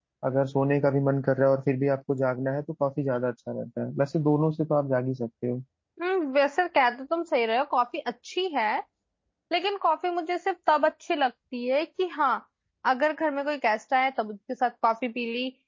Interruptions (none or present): none